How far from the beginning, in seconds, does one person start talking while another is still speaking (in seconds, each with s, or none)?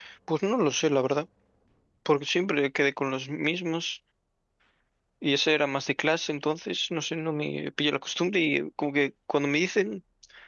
none